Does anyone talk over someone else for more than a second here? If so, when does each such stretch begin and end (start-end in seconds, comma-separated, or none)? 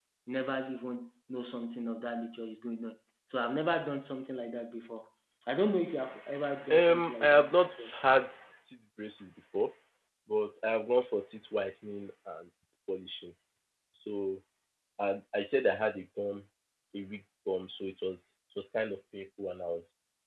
6.7-7.9